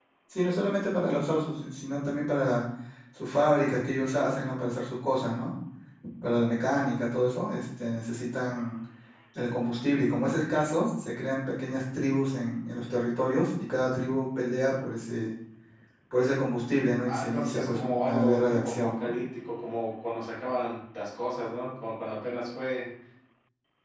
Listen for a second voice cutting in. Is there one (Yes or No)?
Yes